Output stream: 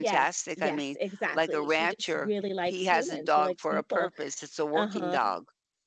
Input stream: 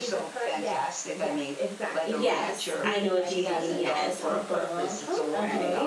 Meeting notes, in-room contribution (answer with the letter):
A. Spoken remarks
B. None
A